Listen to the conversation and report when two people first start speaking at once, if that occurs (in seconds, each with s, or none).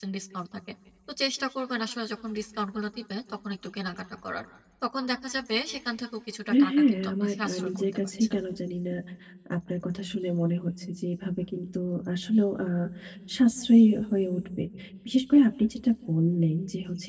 6.5 s